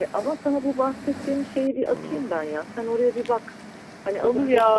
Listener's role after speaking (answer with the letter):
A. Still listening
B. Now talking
B